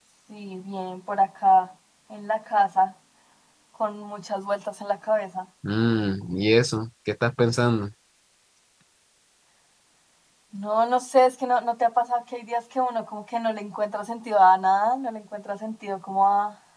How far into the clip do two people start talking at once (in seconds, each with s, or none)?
none